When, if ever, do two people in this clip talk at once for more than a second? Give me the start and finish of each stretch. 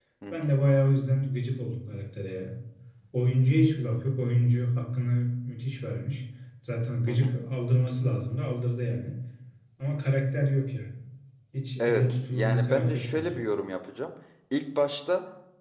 11.8-13.4

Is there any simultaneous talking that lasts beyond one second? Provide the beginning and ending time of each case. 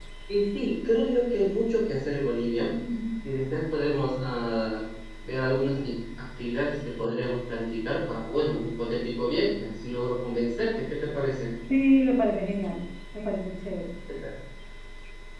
none

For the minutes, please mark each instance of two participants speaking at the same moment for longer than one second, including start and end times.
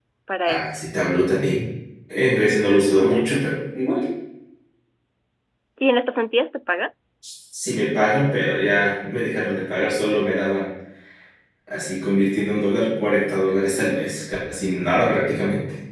none

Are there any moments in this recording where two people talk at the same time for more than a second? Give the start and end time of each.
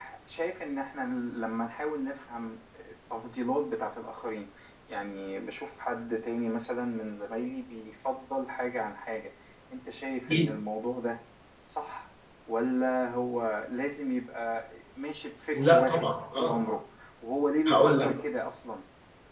15.5-16.8

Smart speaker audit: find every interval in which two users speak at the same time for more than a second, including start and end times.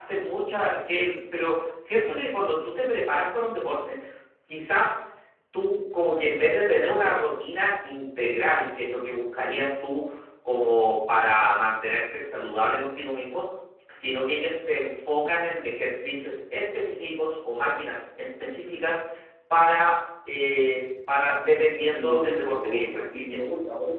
21.8-23.4

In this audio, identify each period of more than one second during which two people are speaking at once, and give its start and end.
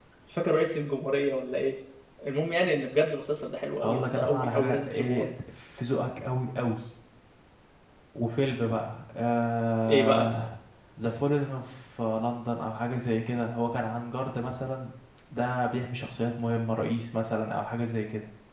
3.8-5.2

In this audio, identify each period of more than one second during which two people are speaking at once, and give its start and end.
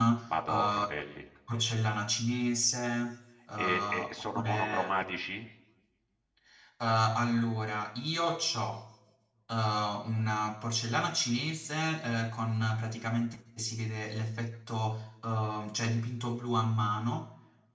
3.6-4.8

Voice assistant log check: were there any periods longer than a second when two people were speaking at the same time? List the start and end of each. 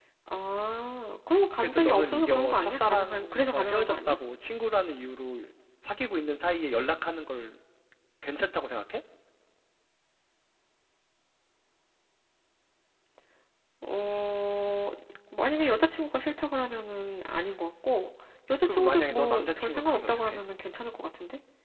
1.6-4.2, 18.6-20.4

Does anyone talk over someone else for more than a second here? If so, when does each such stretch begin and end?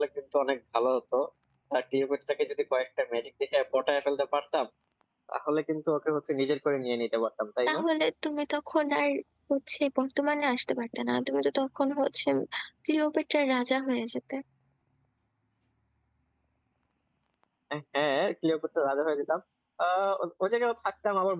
none

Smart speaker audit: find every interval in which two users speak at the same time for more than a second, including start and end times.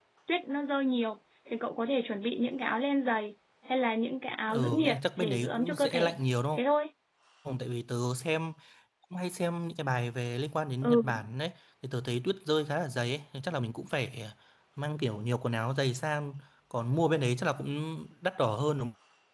4.5-6.1

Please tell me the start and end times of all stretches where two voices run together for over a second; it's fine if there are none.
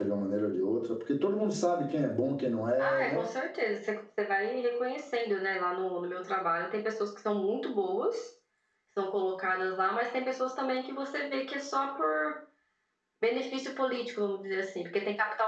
none

